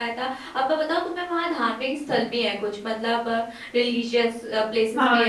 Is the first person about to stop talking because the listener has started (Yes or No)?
Yes